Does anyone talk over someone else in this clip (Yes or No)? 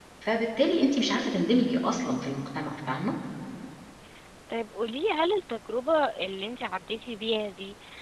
No